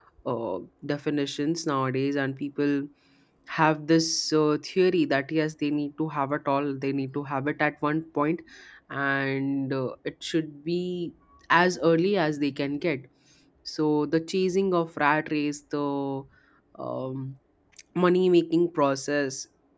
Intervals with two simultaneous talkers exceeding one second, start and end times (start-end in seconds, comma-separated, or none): none